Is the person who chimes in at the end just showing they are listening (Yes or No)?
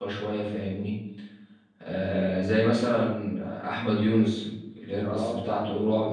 Yes